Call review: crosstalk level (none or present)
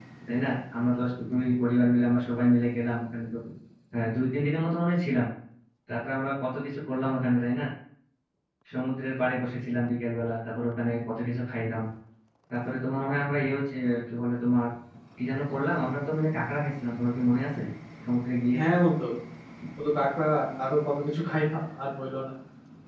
none